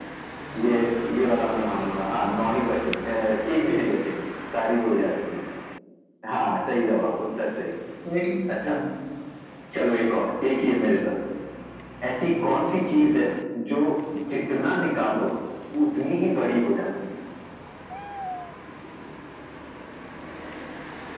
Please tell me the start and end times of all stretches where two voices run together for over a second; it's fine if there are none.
none

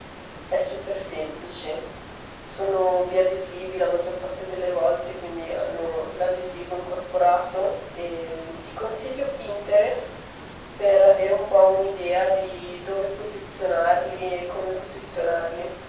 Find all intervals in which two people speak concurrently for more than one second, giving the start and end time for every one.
none

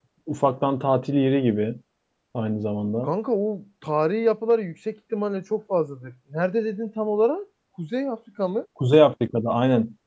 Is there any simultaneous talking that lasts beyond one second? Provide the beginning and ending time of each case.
none

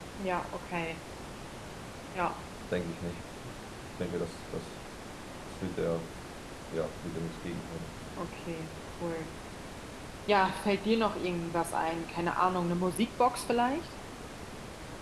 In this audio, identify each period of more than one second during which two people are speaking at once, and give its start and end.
none

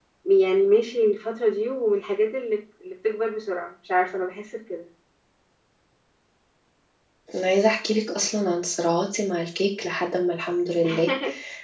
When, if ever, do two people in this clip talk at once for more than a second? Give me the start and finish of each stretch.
none

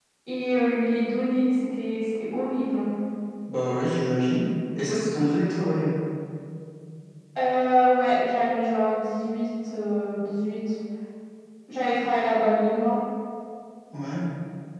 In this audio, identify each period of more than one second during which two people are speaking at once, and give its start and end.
none

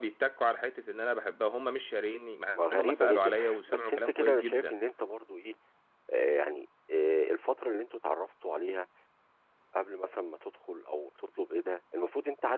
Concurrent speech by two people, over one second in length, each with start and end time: 2.5-4.7

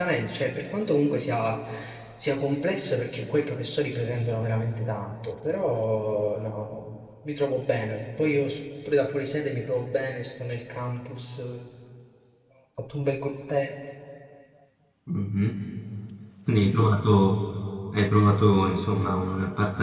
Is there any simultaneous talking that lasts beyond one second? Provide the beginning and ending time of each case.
none

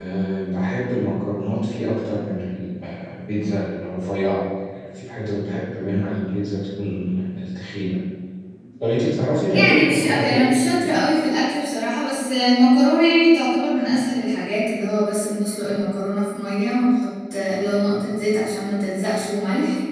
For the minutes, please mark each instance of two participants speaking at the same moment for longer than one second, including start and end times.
9.5-10.9

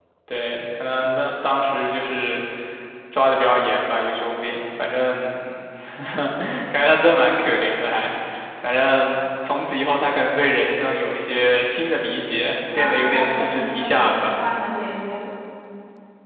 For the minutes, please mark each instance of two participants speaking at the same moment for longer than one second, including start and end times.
12.7-14.3

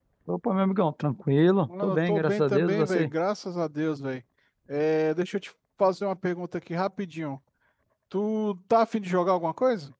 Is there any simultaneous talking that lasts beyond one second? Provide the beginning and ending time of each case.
1.8-3.1

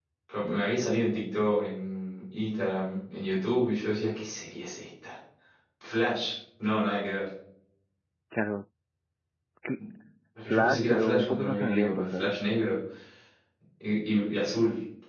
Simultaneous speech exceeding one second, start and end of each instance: 10.4-12.3

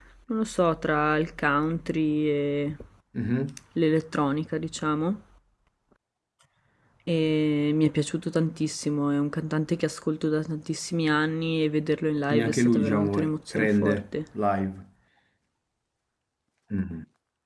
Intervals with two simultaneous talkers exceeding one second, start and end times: 12.3-14.0

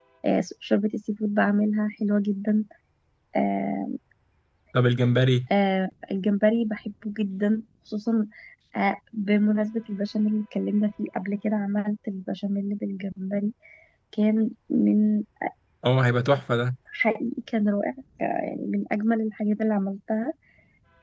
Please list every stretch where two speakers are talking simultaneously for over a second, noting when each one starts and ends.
none

